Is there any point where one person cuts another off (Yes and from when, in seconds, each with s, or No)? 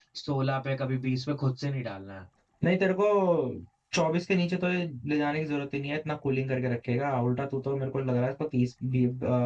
No